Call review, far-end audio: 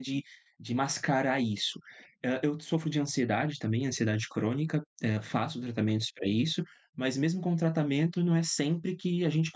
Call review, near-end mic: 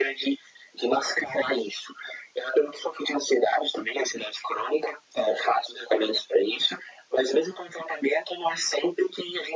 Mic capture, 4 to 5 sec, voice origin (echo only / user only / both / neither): echo only